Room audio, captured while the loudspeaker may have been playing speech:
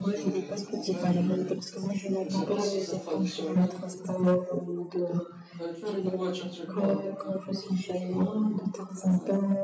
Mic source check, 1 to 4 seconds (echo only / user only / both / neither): both